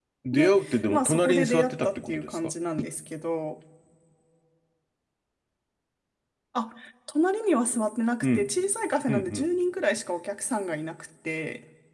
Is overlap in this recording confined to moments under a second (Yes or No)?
No